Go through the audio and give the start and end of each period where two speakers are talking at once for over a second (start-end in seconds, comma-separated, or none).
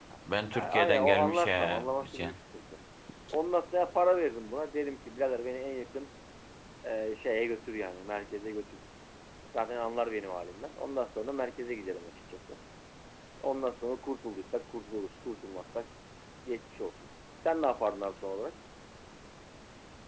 0.5-2.4